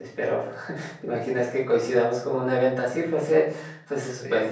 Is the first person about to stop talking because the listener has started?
Yes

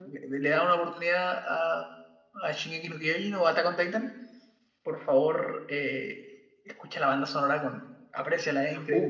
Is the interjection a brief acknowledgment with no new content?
No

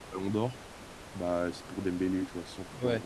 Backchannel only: No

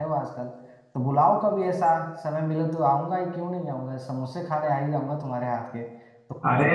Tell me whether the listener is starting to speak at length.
No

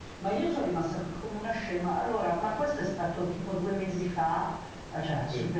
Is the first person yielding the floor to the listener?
No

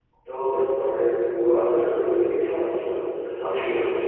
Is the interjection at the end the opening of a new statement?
No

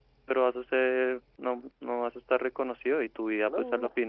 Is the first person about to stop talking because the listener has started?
No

